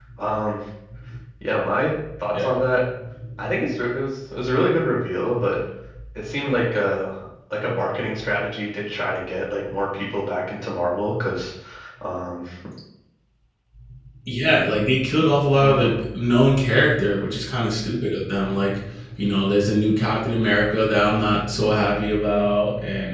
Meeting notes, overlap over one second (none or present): none